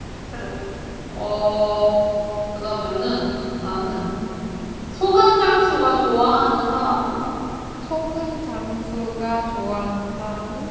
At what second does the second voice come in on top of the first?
none

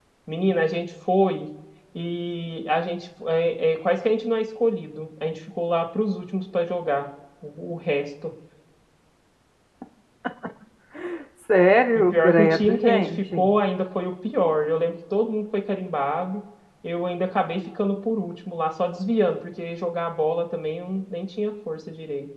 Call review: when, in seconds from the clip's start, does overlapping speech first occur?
12.0 s

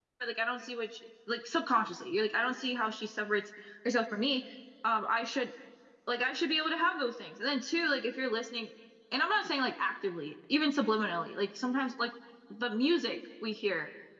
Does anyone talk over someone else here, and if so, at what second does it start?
none

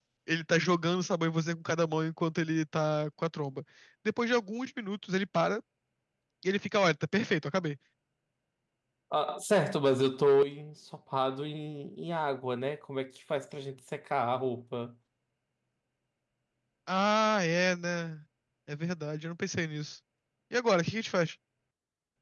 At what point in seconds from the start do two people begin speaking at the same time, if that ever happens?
none

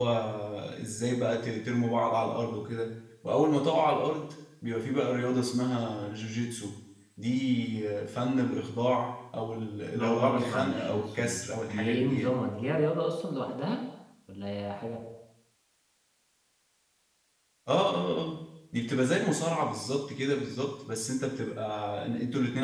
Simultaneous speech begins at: 9.9 s

